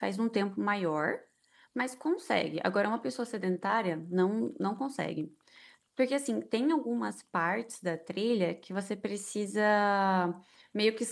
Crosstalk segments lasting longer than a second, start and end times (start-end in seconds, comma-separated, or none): none